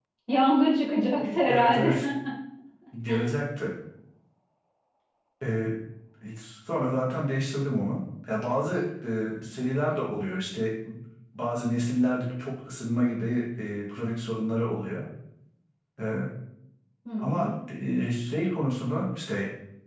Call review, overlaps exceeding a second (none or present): none